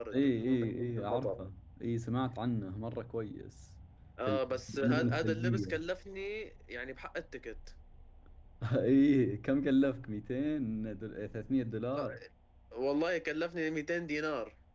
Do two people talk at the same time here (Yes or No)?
Yes